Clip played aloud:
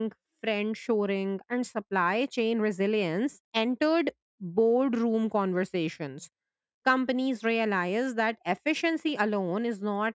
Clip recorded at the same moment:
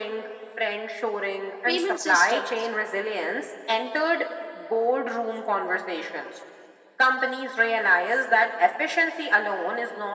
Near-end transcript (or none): payment systems.